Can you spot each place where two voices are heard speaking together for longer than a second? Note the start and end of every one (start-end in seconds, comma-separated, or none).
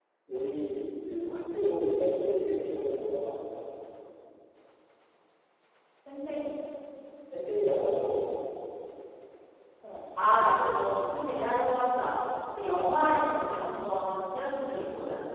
none